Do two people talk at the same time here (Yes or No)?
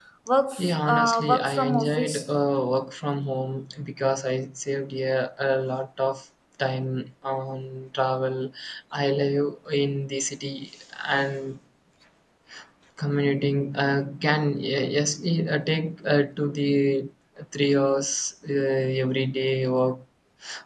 Yes